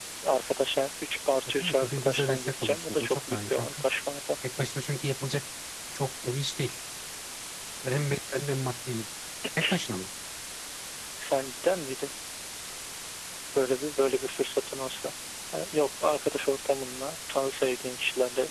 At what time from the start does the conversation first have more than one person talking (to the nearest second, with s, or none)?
2 s